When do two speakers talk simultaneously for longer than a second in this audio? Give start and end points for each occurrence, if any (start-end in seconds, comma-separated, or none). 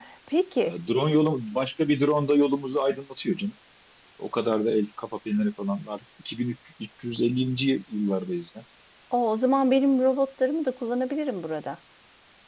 none